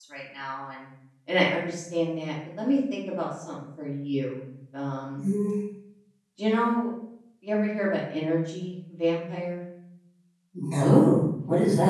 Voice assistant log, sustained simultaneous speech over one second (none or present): none